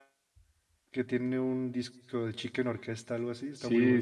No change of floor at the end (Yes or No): No